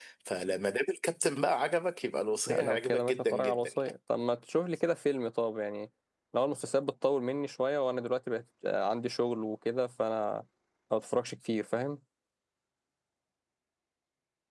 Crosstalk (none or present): present